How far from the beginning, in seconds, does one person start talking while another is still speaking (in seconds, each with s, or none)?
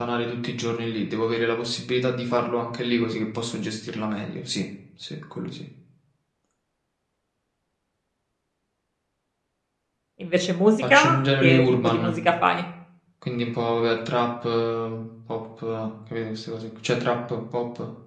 10.9 s